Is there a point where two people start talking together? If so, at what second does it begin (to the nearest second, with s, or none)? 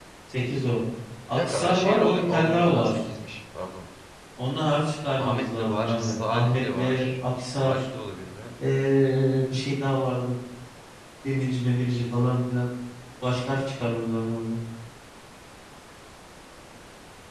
1 s